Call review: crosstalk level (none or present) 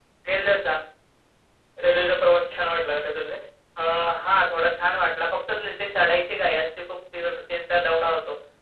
none